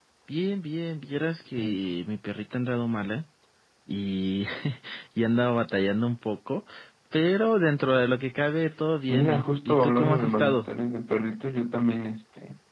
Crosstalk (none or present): present